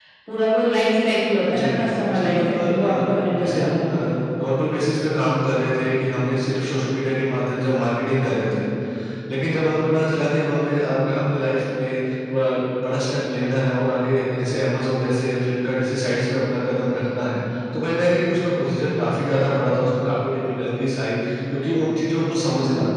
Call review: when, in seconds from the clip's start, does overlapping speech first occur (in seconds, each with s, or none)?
1.4 s